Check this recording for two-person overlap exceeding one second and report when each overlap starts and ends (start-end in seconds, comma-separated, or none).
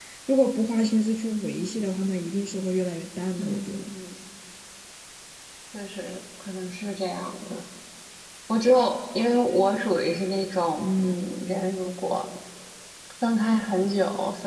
none